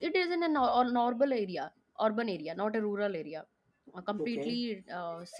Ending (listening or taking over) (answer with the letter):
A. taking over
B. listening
B